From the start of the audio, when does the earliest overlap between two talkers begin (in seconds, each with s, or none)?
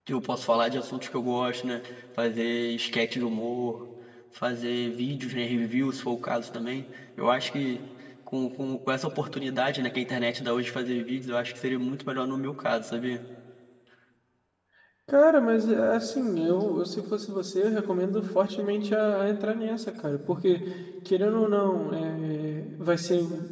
none